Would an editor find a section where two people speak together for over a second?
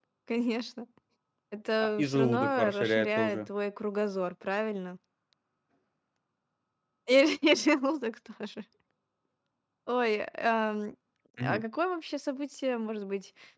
Yes, from 2.0 s

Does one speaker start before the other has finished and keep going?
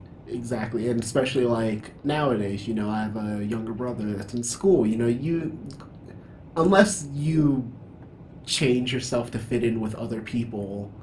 No

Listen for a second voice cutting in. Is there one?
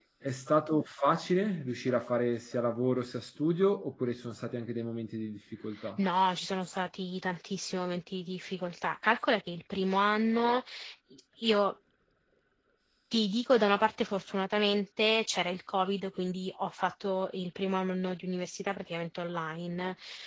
No

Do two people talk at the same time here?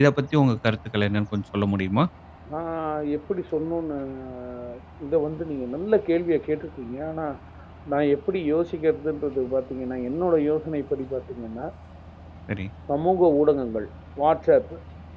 No

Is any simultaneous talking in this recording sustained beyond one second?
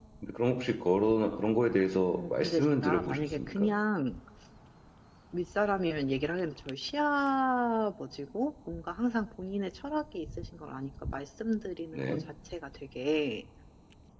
Yes, from 2.2 s

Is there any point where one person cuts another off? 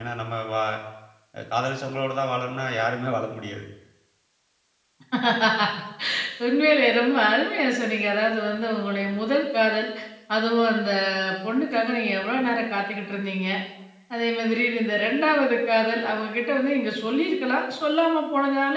No

